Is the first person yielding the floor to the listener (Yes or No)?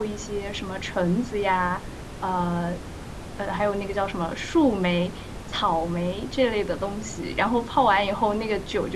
No